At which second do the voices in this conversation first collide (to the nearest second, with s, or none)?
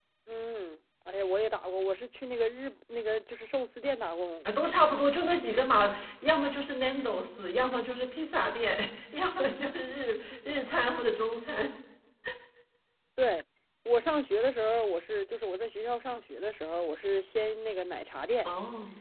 none